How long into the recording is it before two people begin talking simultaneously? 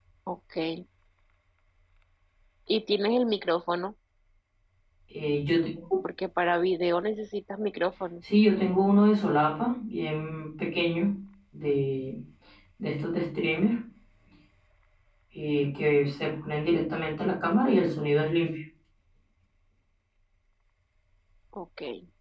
none

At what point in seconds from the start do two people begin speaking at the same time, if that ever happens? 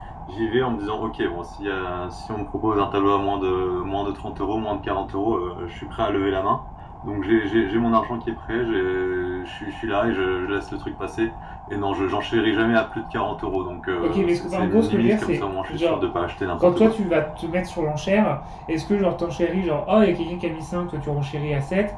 14.0 s

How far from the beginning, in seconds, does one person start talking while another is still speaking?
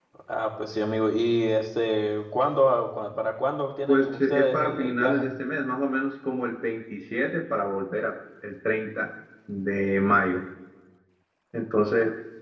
3.9 s

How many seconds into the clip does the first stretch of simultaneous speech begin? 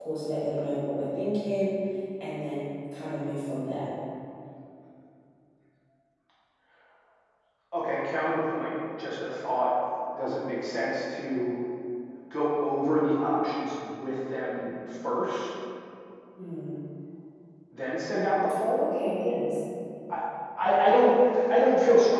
none

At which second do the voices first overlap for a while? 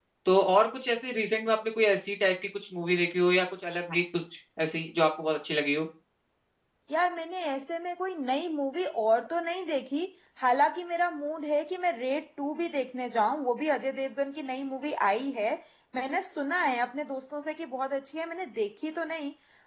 none

